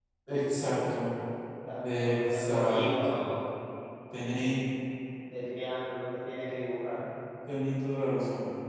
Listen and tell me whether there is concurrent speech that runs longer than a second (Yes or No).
Yes